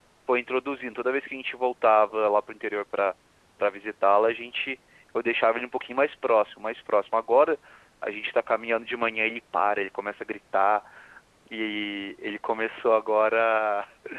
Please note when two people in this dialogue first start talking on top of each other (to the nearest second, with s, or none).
none